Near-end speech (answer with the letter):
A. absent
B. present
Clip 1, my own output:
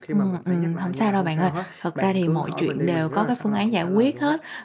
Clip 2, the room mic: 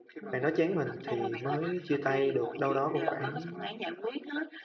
B